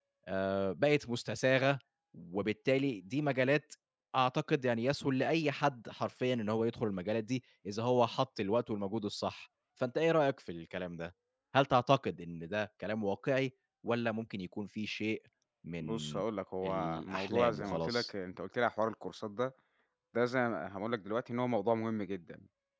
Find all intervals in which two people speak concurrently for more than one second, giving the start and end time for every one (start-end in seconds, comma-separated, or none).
16.6-18.1